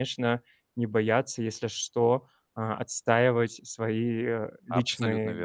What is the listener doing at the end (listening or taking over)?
taking over